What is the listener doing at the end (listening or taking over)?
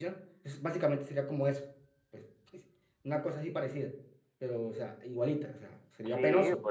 taking over